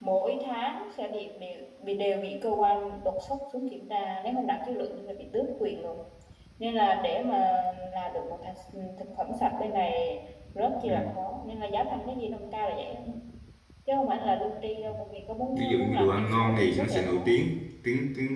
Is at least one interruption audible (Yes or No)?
Yes